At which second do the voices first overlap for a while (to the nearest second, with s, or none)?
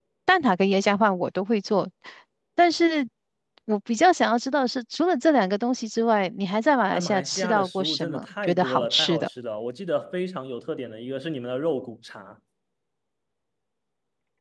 7 s